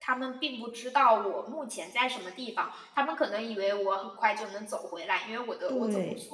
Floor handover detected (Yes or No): No